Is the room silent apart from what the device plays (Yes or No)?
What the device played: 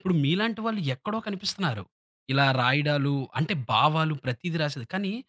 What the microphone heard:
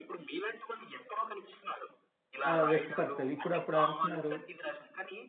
No